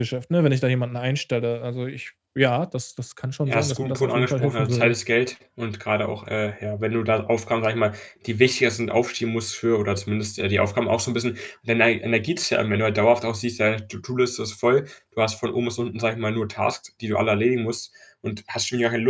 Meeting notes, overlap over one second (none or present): present